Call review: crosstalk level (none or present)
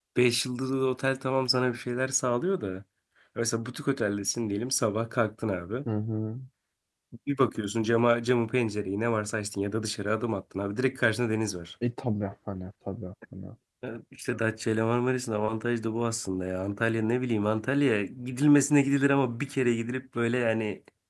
none